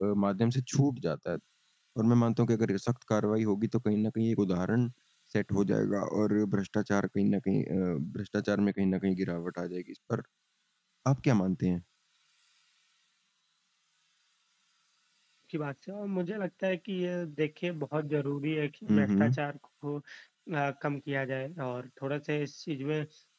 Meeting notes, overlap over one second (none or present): none